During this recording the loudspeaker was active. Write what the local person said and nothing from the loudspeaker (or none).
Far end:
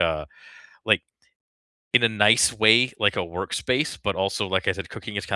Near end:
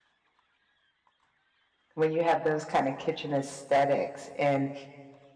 when you have those kind of kitchen aesthetics and